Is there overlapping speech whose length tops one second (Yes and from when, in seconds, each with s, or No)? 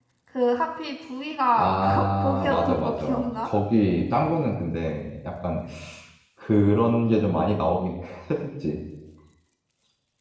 Yes, from 1.6 s